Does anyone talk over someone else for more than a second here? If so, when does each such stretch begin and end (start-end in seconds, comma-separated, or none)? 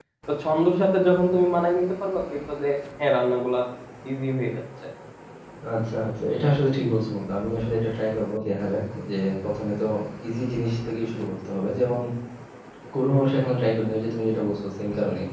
none